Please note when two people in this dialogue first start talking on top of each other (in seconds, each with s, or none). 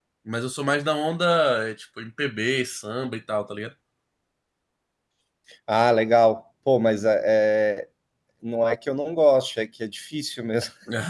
none